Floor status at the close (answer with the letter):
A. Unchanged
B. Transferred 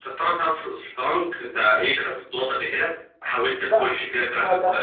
B